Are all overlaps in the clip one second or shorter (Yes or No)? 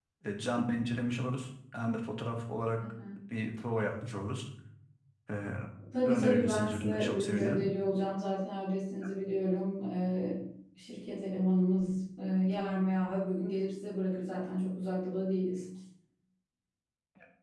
No